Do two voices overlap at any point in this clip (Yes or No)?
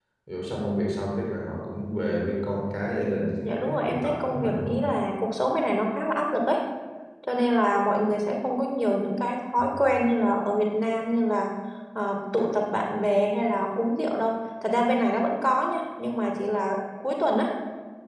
Yes